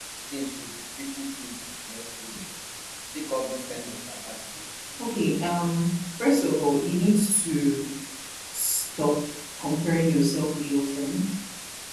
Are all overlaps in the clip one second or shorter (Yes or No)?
Yes